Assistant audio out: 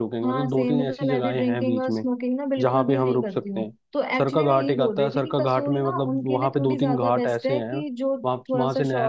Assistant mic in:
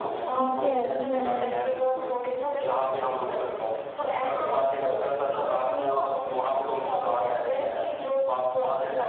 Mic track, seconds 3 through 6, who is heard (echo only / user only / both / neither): echo only